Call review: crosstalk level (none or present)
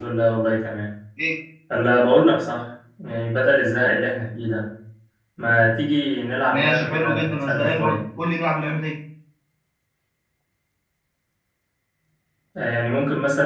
present